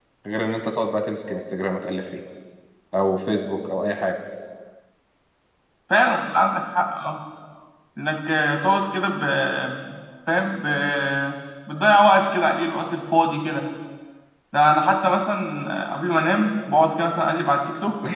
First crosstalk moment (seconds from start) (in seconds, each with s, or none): none